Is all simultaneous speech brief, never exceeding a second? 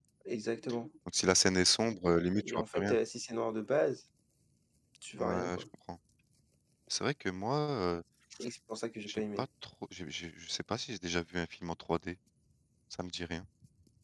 Yes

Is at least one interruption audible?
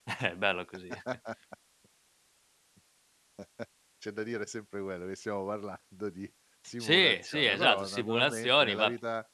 Yes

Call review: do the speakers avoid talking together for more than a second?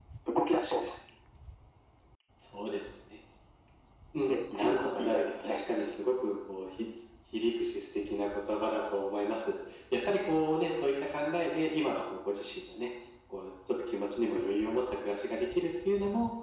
No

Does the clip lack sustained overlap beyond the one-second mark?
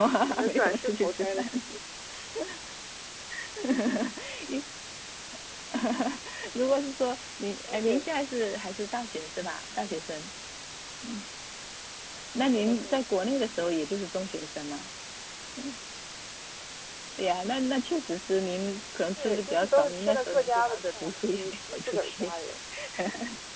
No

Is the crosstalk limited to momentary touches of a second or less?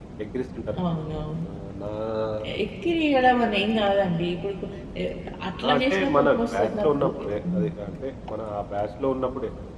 No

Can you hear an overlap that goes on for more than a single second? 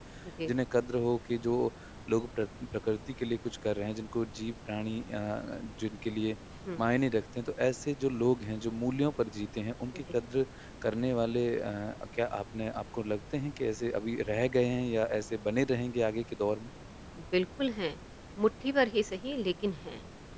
No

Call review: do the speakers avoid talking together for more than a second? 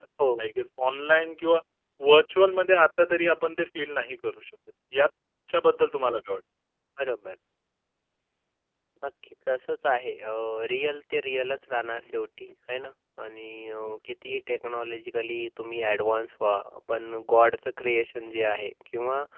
Yes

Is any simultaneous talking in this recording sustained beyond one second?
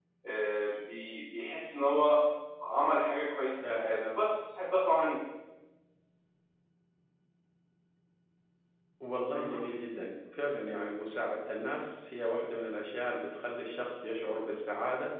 No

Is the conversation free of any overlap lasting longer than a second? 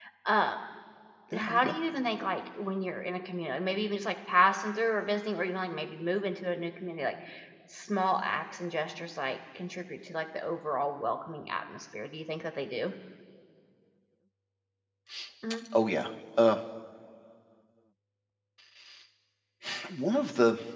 Yes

